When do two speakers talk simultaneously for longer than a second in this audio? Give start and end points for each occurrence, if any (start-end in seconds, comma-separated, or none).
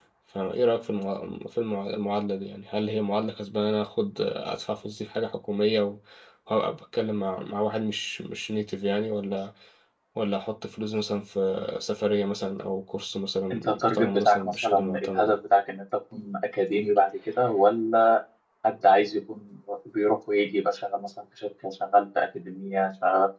13.5-15.4